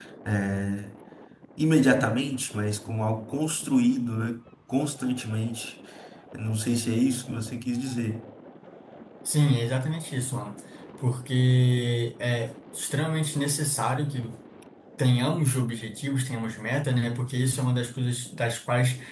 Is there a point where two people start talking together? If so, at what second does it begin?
none

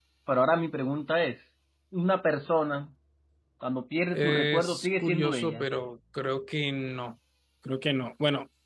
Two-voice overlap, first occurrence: 4 s

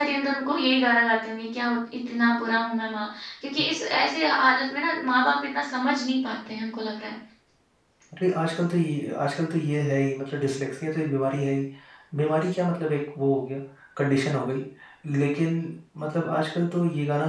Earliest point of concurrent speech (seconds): none

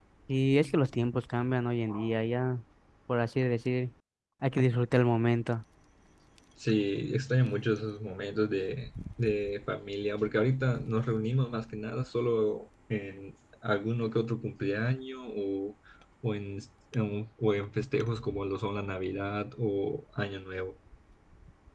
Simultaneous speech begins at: none

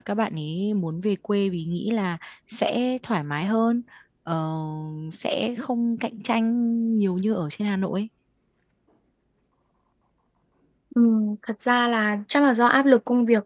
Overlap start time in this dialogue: none

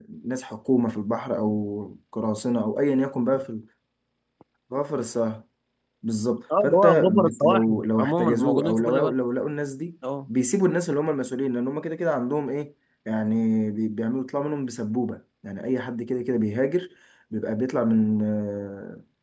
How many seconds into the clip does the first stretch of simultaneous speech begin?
7 s

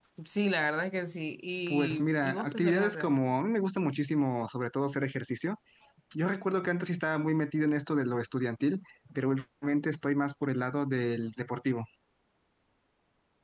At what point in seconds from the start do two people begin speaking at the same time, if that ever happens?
2 s

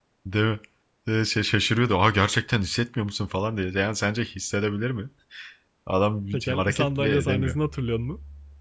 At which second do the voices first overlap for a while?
6 s

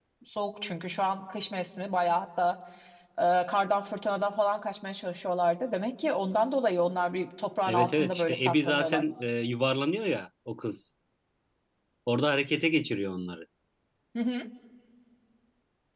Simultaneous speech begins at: 8 s

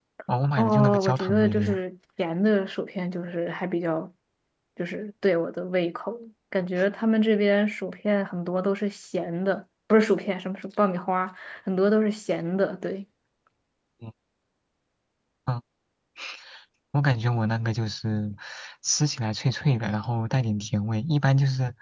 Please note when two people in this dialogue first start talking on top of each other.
1 s

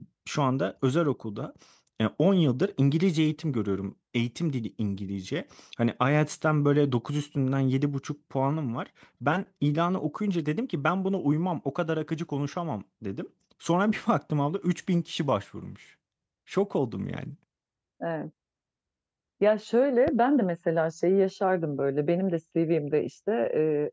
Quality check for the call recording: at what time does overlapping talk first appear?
none

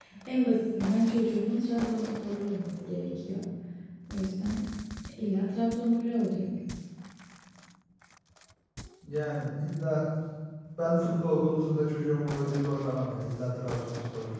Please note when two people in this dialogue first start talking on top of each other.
none

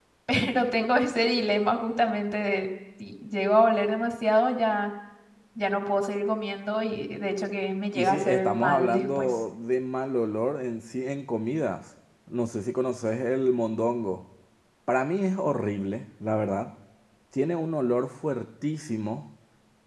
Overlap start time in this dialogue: 8 s

